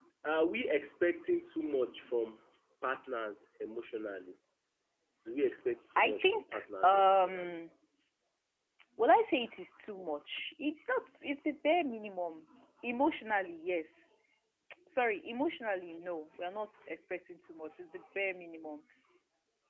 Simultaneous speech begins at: 6 s

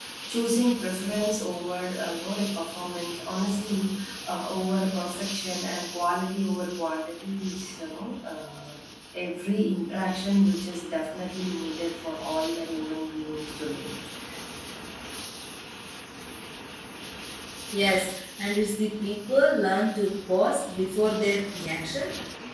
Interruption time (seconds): none

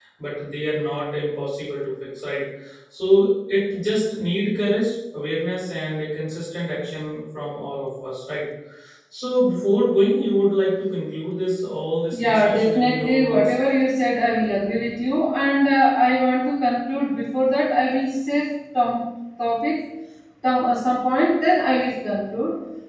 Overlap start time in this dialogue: 12 s

